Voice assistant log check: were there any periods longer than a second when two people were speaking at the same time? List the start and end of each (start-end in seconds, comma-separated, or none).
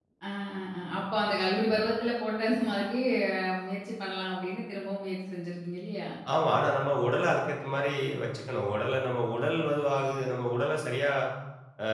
none